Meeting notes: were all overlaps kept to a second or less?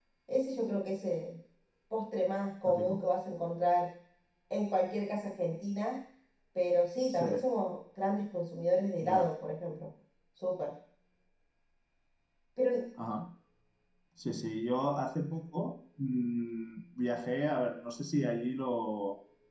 Yes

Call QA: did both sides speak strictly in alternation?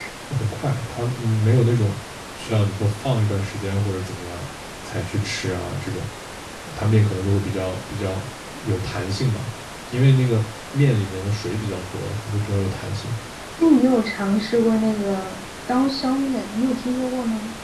Yes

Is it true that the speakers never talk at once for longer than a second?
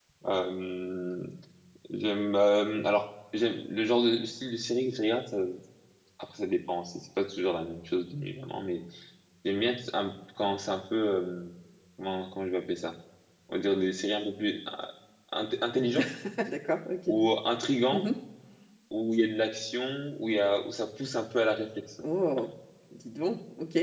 Yes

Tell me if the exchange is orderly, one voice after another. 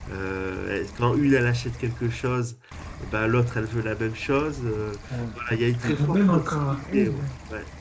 No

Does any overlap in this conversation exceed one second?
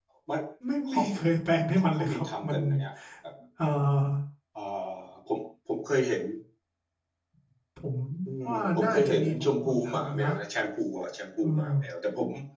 Yes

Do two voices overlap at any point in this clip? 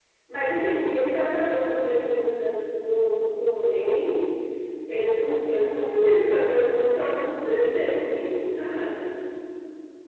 No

